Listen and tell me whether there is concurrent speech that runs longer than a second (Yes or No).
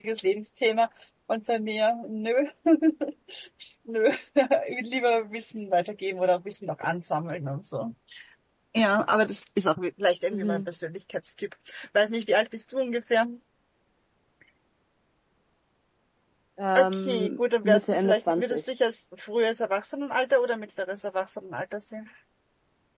Yes